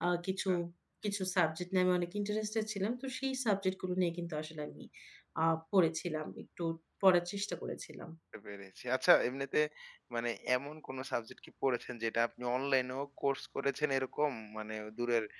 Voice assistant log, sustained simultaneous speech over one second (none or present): none